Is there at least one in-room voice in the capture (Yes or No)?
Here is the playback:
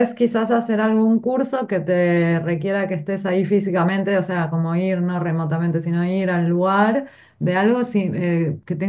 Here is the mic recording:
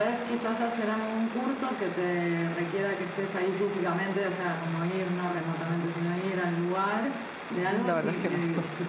Yes